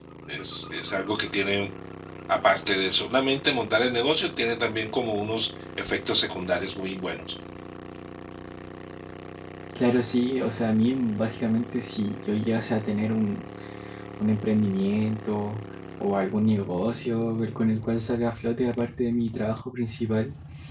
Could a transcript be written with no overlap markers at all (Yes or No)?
Yes